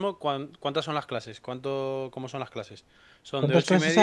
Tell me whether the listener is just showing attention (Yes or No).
No